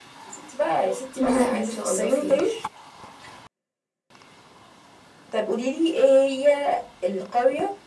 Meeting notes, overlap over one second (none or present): present